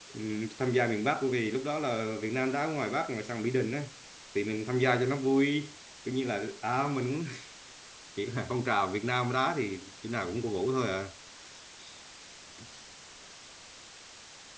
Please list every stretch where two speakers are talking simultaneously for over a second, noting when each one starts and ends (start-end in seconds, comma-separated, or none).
none